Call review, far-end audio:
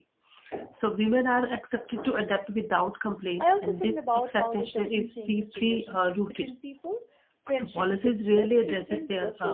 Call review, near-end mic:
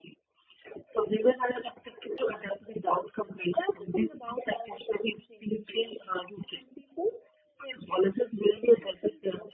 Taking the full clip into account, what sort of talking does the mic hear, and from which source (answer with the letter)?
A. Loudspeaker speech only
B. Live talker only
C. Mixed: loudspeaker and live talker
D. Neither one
A